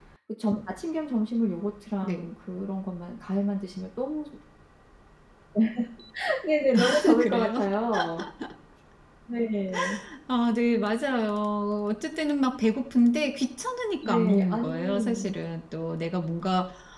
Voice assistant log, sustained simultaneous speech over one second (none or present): present